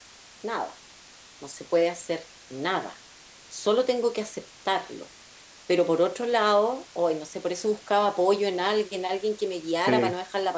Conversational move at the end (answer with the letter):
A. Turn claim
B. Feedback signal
B